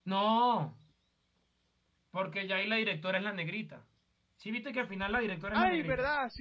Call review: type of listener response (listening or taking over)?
taking over